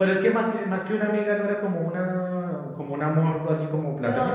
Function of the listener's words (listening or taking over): taking over